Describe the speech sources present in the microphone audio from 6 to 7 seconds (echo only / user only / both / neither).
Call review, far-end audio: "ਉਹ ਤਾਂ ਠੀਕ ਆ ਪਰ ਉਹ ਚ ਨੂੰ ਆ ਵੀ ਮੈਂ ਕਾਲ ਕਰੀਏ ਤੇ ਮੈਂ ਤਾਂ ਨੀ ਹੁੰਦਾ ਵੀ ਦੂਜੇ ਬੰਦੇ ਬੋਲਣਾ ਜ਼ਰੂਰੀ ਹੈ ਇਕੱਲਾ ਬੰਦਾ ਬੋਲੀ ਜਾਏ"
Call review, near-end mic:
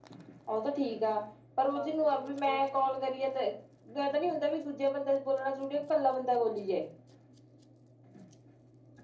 echo only